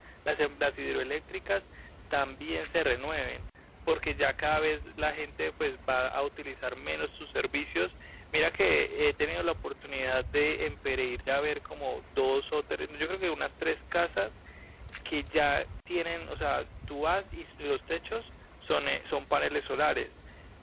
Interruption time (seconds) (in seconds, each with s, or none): none